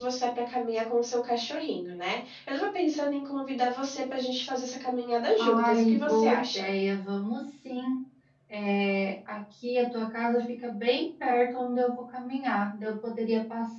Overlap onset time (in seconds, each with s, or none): 5.4 s